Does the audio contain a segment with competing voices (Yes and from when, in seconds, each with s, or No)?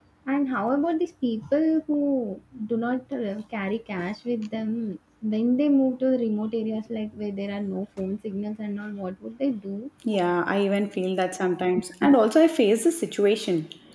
No